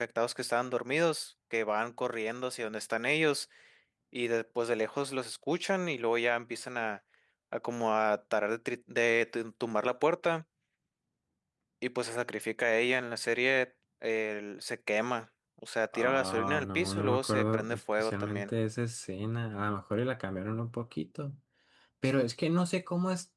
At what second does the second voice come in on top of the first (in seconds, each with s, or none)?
15.9 s